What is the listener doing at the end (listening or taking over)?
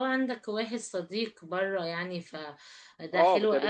taking over